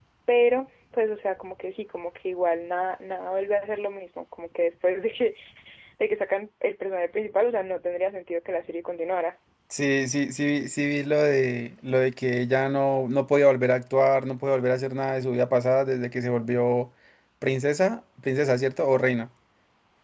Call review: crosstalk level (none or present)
none